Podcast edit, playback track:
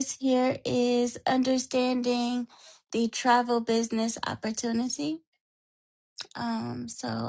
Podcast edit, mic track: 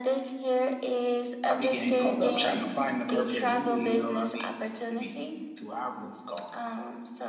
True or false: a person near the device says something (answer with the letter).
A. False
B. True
B